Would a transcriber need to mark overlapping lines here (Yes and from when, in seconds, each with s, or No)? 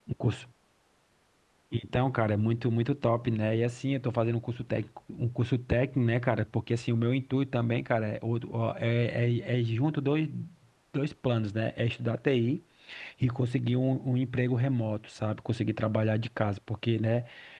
No